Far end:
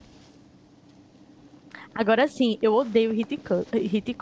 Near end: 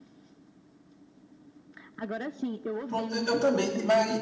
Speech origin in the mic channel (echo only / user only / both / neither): both